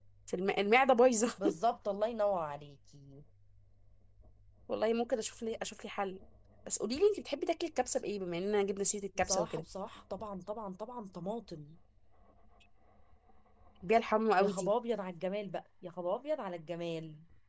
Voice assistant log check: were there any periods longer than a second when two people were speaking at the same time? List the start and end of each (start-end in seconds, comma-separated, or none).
none